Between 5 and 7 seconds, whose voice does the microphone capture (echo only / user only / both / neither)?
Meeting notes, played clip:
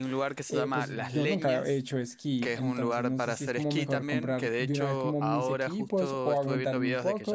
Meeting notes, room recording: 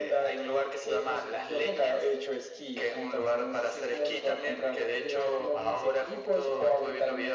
echo only